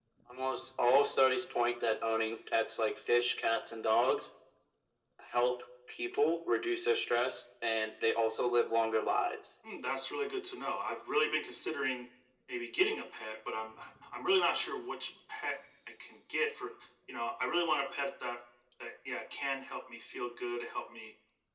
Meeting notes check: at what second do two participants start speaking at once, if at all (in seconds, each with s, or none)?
none